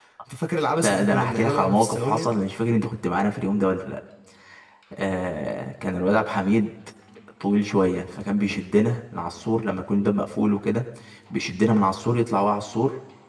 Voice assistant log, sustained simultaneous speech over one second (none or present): present